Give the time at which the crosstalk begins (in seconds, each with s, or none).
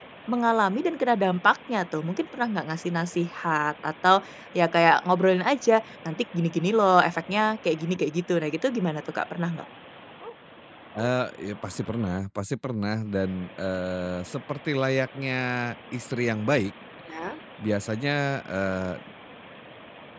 none